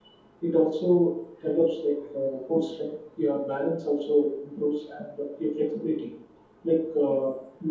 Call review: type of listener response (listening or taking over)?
listening